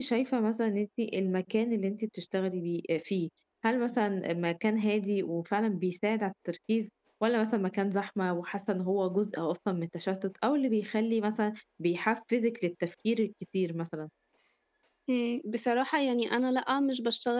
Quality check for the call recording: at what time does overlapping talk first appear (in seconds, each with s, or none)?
none